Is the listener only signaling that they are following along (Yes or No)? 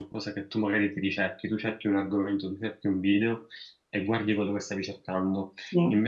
Yes